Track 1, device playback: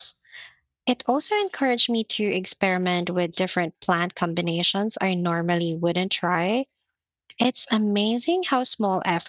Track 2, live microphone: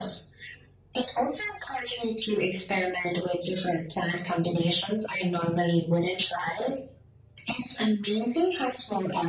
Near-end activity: none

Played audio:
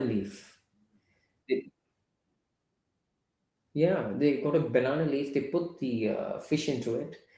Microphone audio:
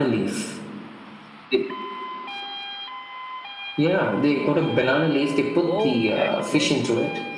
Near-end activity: present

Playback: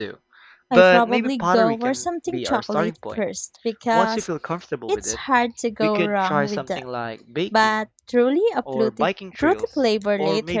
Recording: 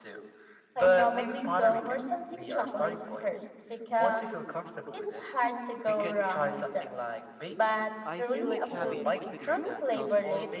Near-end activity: present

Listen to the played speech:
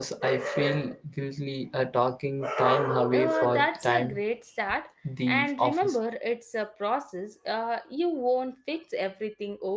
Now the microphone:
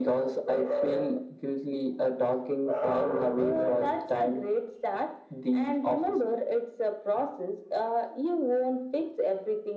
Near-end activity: none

